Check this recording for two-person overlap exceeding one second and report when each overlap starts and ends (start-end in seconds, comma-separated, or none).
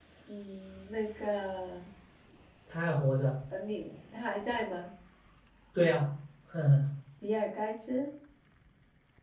none